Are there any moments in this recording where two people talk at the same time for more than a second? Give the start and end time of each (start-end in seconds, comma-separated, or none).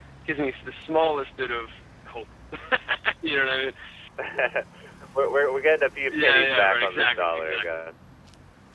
6.1-7.6